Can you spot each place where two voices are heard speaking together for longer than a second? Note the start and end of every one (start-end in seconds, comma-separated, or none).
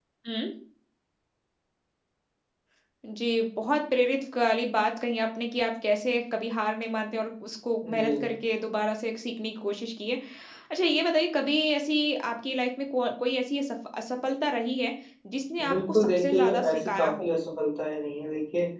15.7-17.3